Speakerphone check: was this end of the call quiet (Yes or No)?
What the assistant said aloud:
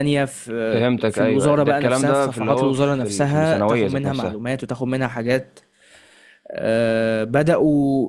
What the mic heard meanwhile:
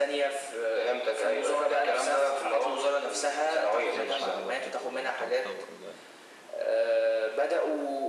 No